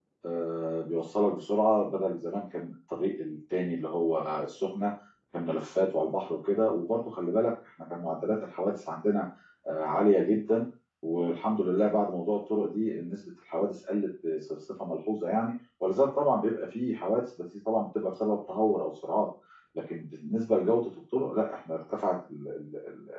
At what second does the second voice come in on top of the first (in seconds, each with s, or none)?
none